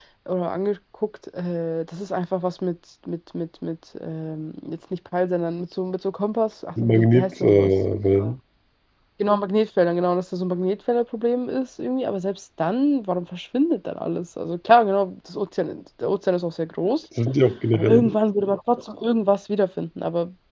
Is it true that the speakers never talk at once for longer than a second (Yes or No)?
No